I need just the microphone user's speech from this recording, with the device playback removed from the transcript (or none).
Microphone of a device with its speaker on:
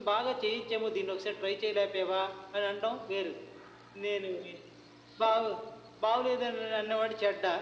none